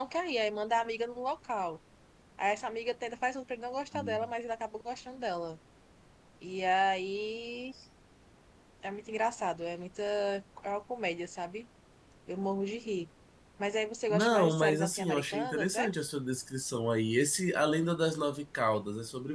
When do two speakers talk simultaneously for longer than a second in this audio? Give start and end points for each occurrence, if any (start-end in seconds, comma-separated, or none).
14.1-15.9